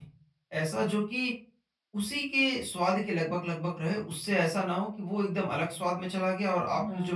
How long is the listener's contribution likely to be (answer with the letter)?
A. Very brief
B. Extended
B